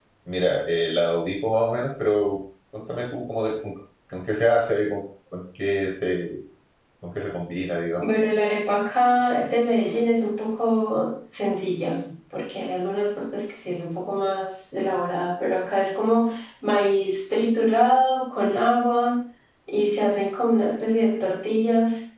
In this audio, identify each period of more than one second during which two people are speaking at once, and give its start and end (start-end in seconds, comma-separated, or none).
none